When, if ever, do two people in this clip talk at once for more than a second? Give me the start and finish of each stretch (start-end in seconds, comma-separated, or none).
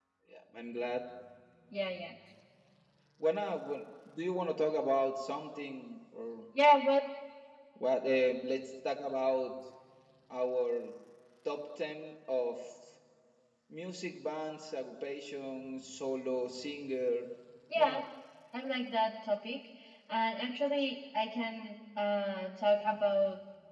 none